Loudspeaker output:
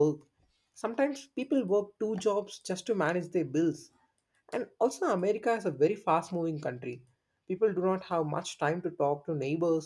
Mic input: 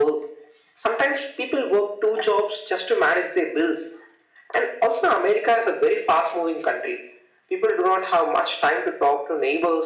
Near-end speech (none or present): none